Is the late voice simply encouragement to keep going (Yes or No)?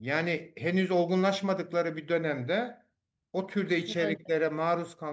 Yes